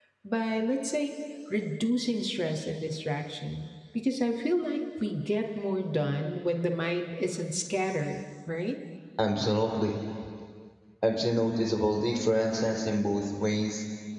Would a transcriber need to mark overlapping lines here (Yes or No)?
No